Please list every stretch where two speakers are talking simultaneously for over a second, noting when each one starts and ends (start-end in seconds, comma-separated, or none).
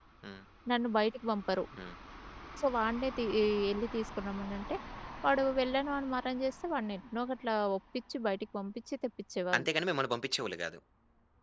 none